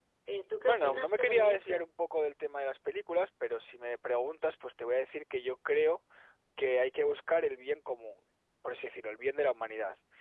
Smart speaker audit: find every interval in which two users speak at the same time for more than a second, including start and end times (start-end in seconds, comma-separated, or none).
0.6-1.9